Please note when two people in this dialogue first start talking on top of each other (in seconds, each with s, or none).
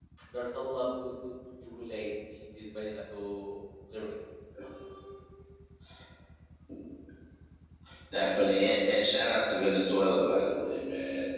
none